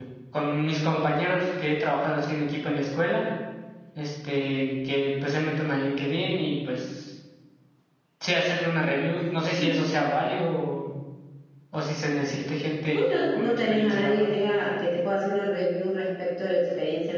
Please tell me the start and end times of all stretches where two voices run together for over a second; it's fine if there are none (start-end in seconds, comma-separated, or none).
12.9-14.3